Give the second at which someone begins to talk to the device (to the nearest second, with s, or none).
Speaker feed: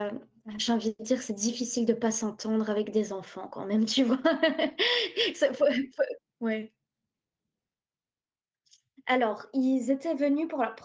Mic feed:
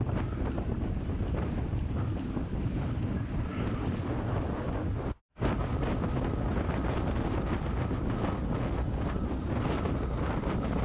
none